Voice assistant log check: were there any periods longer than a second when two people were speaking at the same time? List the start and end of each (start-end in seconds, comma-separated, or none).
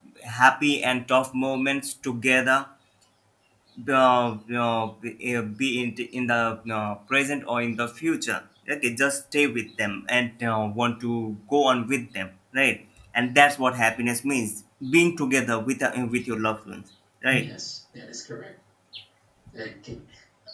none